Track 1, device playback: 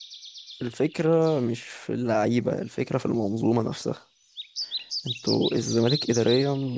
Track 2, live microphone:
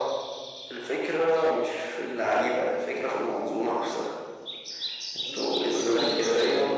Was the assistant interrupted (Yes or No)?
Yes